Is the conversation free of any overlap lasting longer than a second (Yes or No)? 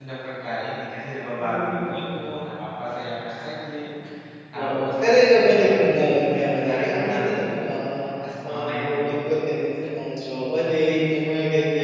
No